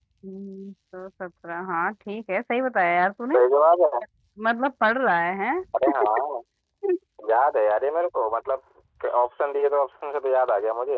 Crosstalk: none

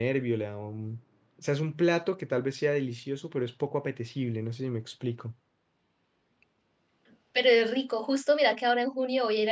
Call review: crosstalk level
none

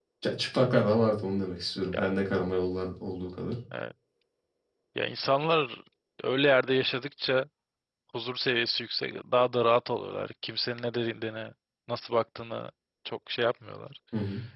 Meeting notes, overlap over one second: none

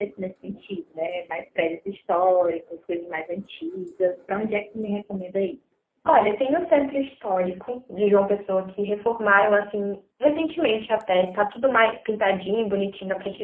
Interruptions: none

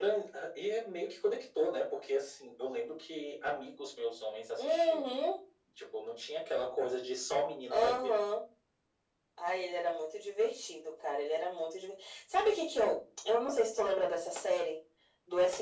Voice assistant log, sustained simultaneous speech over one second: none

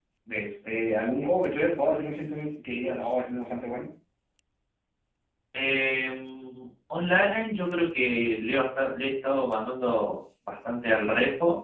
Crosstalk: none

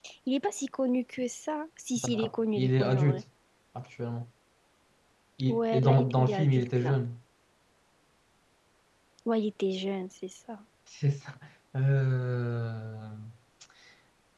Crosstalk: present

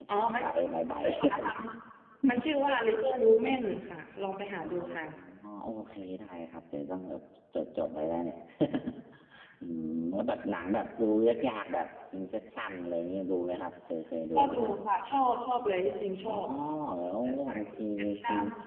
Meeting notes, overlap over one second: present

